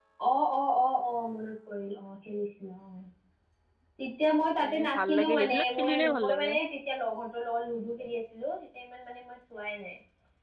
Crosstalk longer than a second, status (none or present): present